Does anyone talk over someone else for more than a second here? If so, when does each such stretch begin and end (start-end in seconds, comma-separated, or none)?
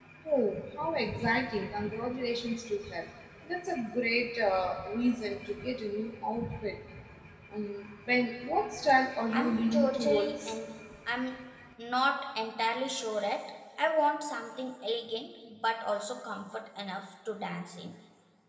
9.3-10.6